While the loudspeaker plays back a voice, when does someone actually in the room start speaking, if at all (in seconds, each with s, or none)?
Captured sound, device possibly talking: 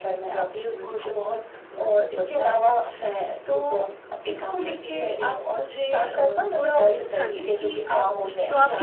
7.2 s